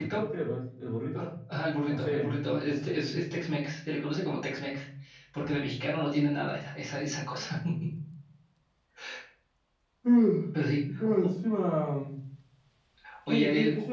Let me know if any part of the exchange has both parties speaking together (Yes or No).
Yes